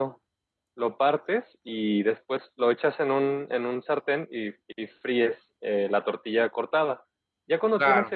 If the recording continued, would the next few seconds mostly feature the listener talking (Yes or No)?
No